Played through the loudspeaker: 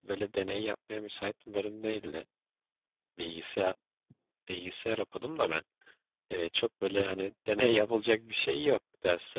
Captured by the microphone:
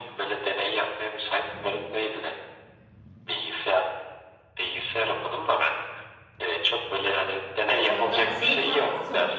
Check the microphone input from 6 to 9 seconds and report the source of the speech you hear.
both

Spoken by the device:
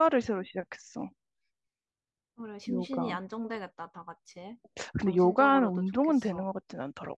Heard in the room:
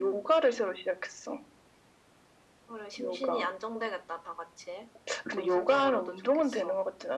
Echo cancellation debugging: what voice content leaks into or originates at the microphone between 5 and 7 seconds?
echo only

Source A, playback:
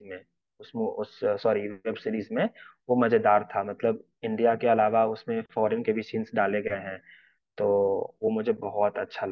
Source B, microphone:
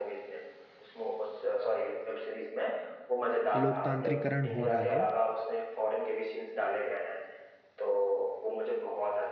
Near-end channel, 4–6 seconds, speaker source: both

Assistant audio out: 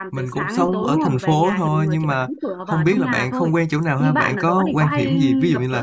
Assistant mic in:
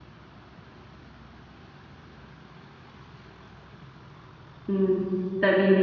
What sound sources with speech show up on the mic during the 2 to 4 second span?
neither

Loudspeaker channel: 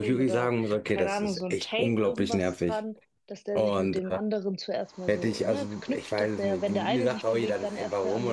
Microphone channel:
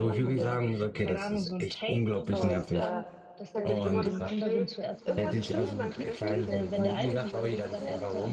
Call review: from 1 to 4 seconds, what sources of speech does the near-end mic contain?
both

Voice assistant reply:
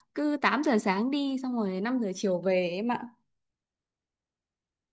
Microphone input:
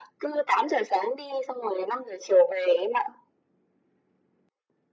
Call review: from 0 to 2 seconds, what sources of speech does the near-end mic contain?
echo only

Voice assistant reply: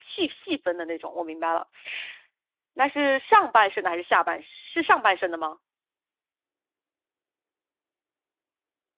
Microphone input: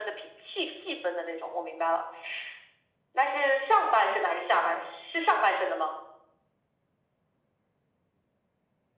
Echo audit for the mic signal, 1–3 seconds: echo only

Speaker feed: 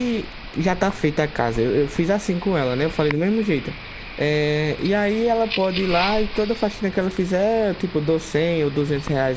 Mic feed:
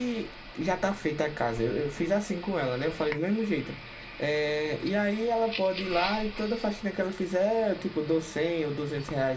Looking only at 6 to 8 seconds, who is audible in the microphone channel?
echo only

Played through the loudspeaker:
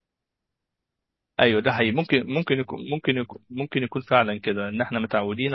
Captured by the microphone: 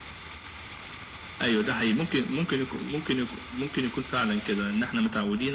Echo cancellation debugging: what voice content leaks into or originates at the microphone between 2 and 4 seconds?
echo only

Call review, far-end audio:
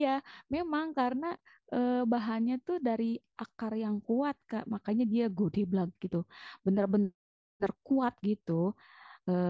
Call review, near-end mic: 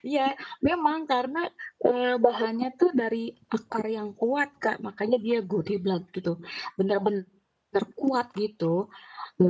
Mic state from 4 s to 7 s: echo only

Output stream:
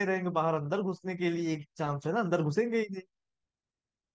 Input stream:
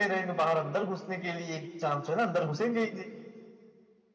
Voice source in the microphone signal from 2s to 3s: echo only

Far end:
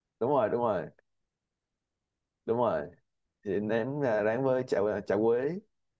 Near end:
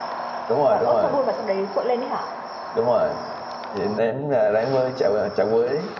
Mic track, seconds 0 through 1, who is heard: both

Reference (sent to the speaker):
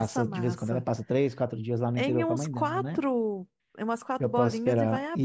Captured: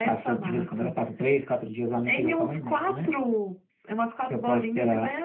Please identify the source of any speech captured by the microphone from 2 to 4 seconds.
echo only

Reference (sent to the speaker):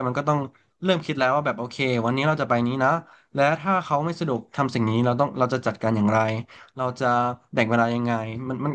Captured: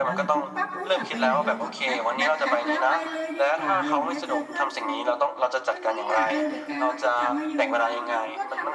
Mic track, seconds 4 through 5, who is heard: both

